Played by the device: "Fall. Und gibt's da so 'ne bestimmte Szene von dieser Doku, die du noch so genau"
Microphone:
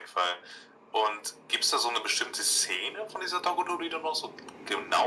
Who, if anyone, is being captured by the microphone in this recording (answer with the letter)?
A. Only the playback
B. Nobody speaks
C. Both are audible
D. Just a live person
A